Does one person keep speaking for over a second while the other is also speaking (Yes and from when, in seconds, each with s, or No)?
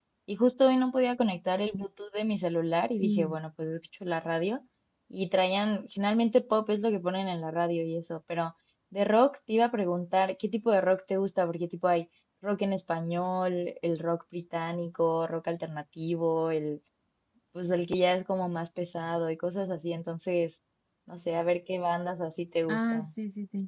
No